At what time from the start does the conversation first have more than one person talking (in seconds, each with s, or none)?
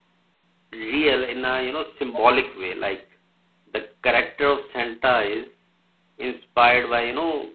none